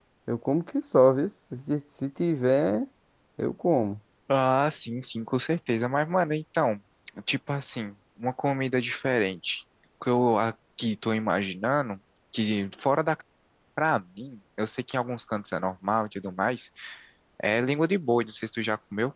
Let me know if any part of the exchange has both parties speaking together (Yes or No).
No